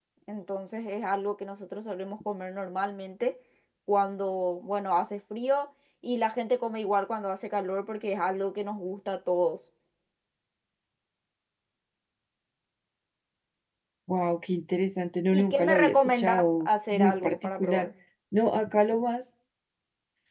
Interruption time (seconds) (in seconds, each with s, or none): 15.3 s